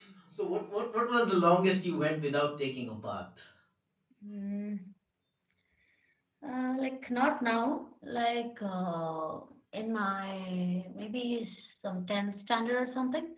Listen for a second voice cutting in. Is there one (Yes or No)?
No